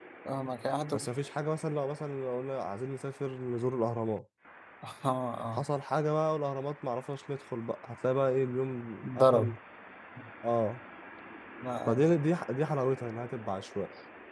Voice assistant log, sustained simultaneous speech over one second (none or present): none